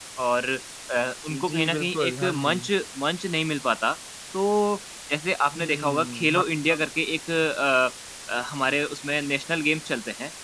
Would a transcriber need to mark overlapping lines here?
Yes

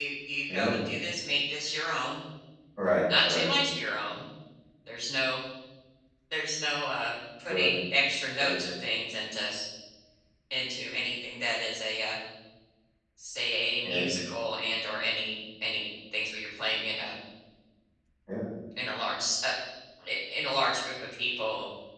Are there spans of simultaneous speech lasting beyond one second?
No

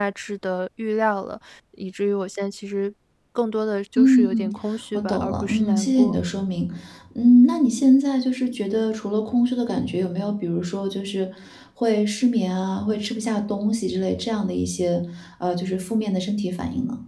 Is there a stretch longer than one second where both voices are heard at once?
Yes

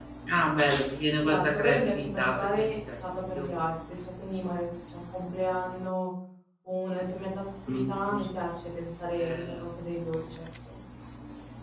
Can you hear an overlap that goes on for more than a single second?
Yes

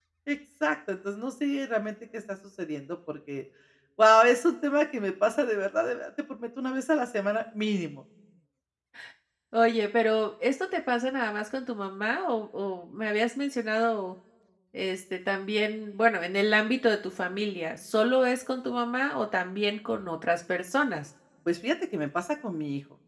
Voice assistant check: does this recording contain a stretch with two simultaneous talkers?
No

